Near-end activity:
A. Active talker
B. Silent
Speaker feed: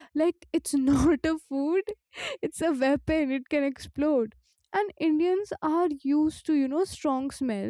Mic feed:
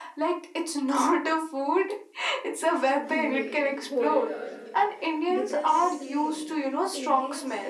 A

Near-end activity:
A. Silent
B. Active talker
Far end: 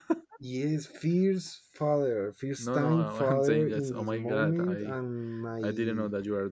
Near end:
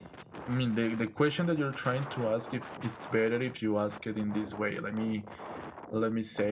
B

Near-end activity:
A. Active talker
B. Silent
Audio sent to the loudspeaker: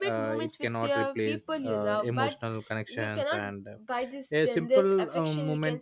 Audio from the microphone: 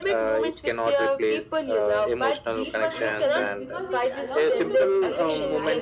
A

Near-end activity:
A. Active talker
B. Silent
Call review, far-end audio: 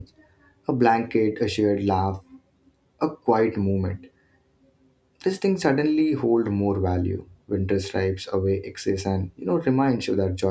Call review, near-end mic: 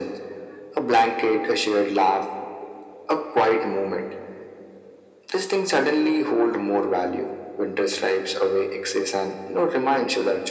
B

